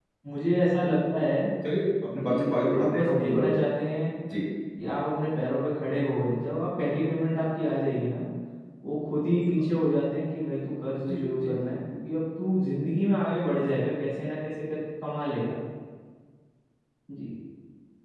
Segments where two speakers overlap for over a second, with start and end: 2.2-3.5

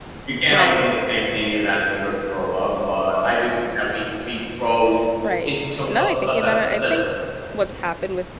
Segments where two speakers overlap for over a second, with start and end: 5.5-7.0

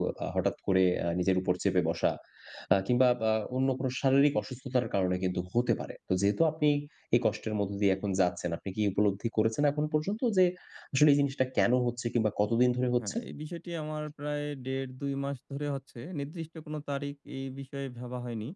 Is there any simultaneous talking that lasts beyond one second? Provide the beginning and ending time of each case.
none

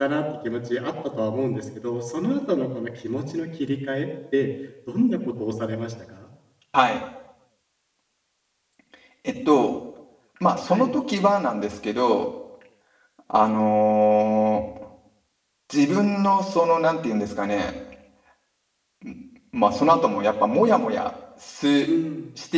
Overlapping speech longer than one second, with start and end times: none

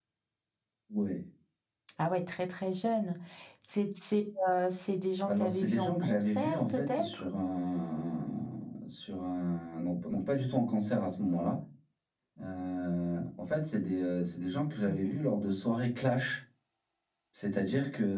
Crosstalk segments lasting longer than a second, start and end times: 5.2-7.2

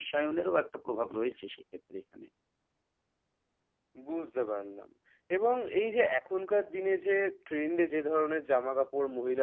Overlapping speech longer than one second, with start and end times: none

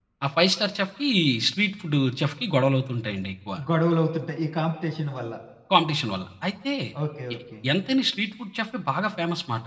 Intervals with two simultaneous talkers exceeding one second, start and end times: none

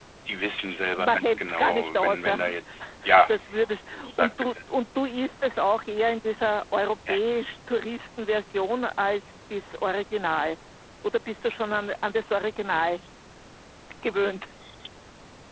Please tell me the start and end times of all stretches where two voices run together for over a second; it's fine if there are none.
1.0-2.4

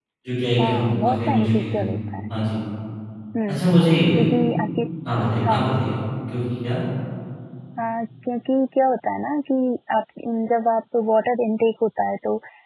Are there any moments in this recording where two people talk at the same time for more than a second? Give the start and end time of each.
0.6-1.9

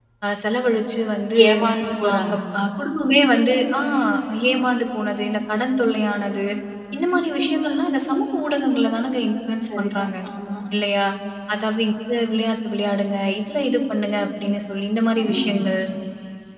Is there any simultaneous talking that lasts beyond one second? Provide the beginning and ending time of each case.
none

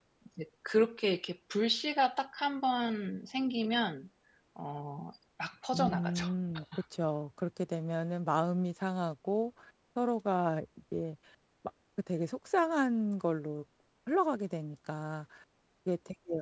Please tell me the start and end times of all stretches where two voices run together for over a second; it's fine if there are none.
none

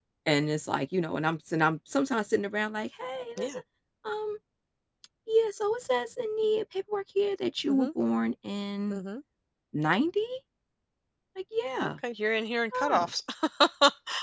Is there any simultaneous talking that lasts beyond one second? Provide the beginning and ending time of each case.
none

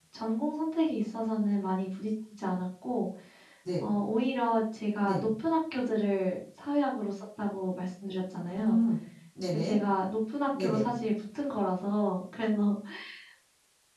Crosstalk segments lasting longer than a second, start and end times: none

